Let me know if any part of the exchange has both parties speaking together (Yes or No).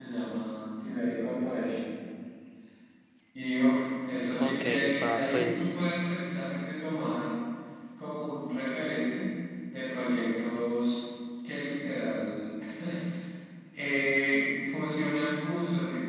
Yes